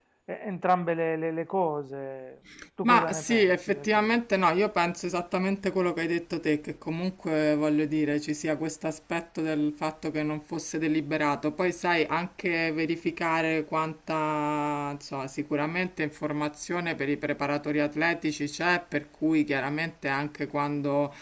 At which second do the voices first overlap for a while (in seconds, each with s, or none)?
2.8 s